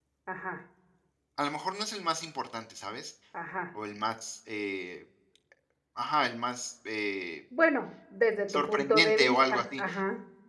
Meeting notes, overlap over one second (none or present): present